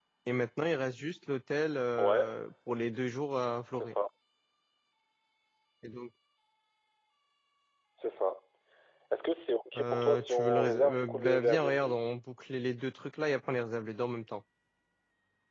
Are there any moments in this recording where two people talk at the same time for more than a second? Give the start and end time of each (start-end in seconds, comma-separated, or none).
9.8-11.8